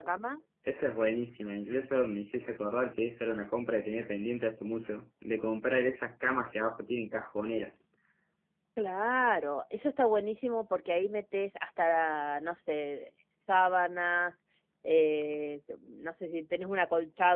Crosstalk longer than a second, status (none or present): none